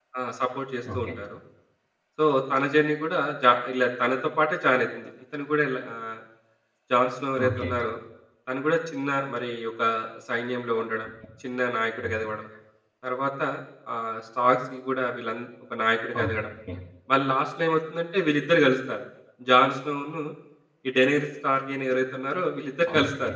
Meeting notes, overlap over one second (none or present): none